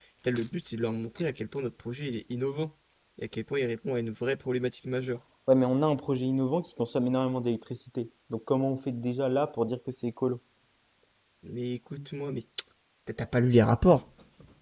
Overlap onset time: none

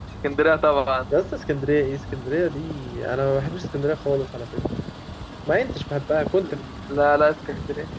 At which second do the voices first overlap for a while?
none

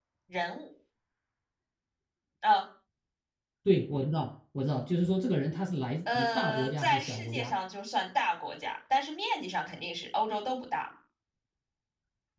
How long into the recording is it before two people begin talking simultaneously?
6.1 s

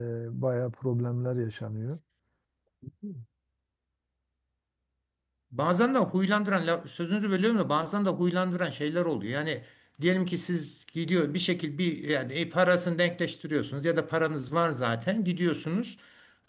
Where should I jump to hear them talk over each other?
none

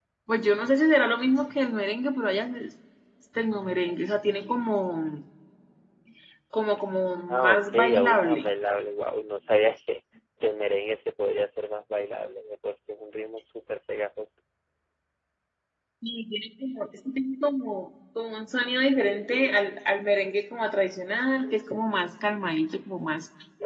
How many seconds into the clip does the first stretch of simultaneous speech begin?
7.3 s

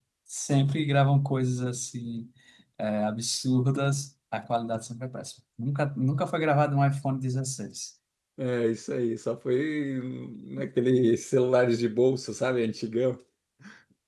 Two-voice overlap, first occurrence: none

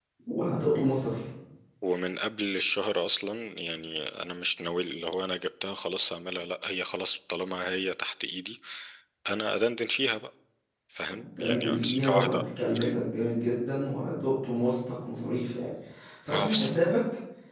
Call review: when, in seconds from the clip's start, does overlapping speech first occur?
11.1 s

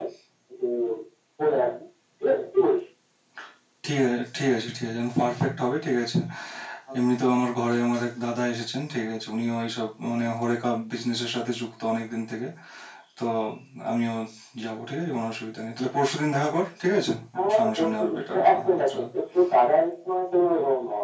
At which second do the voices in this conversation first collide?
17.4 s

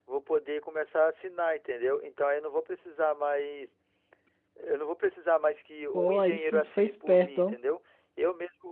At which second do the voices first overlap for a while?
5.9 s

